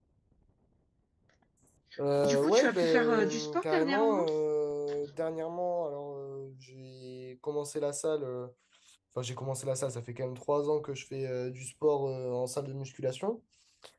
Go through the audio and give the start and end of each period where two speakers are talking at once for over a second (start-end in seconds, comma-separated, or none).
2.2-4.2